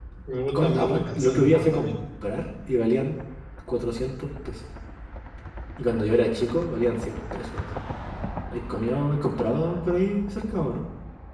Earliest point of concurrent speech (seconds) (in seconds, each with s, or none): 0.5 s